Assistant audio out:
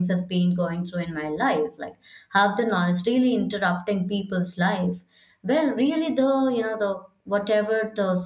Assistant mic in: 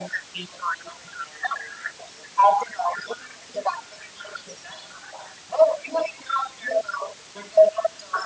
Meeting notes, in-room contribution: none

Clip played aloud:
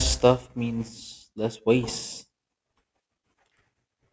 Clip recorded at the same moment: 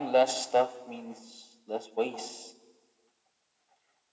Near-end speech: none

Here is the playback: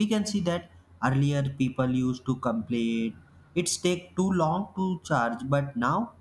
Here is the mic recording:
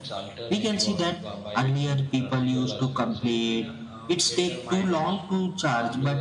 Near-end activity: present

